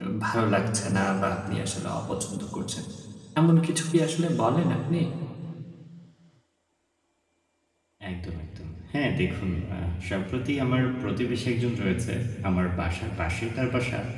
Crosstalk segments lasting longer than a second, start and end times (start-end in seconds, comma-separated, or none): none